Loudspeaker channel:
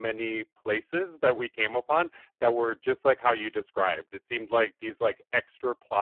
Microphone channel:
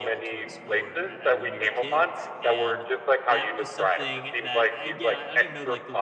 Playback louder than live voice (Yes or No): Yes